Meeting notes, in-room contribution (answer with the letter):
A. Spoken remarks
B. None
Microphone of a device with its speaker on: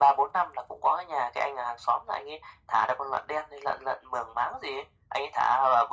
B